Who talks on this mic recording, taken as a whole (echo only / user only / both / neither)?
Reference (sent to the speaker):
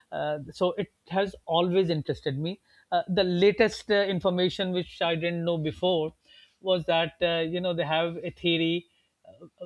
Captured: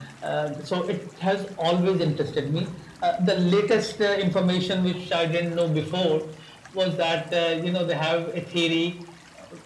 echo only